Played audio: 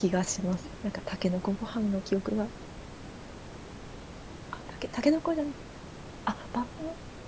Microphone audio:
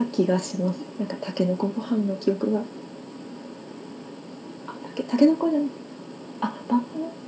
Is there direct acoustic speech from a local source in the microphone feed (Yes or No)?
No